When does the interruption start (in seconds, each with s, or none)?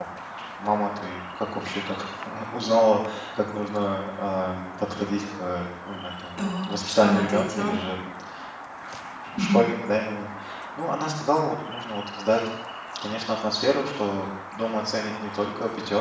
6.4 s